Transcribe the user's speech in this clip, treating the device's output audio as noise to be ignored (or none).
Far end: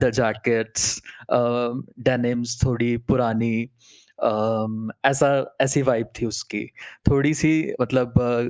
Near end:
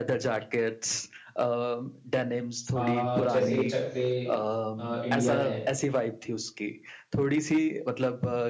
अ, जैसे चक दे अ, इंडिया है